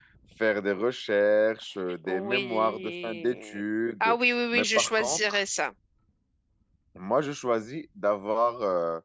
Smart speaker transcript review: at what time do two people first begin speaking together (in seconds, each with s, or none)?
2.0 s